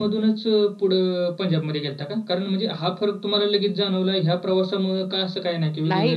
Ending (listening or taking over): taking over